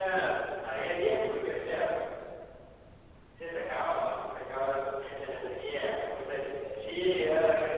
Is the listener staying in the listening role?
Yes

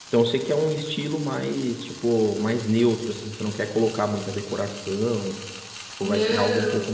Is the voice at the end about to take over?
Yes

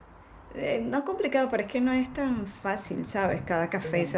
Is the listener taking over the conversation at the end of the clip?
No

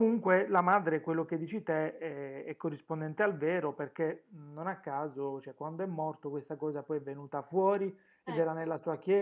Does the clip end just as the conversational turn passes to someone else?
No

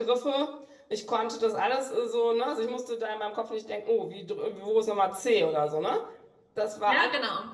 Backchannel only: Yes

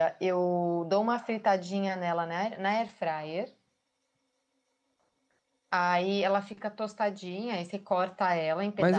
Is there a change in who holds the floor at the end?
Yes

